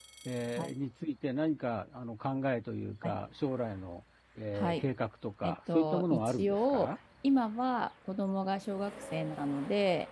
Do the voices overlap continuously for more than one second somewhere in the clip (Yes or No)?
Yes